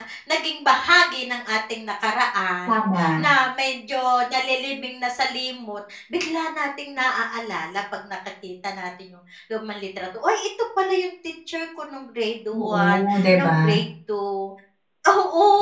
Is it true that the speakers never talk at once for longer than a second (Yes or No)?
No